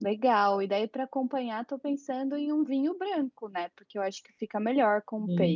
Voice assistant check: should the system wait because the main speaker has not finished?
No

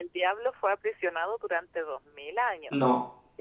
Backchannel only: Yes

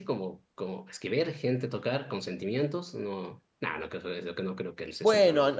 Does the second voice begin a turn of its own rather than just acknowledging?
Yes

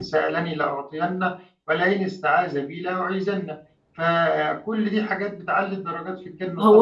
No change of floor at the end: No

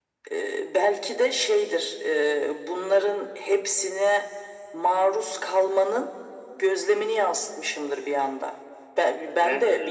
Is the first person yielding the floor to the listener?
No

